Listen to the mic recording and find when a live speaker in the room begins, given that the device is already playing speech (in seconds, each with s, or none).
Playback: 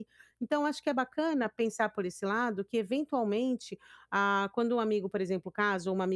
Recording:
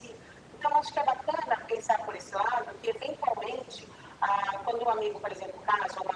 none